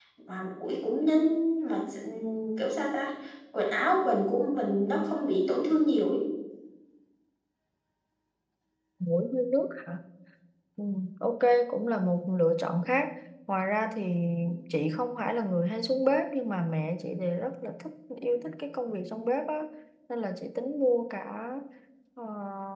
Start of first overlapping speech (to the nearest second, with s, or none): none